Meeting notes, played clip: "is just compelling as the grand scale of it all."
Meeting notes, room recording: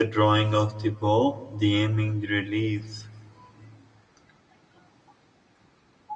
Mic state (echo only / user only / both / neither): user only